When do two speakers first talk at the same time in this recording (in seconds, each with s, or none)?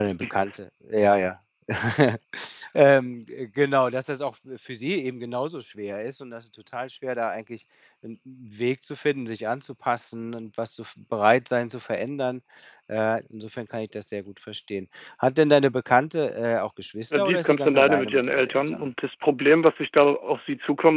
17.1 s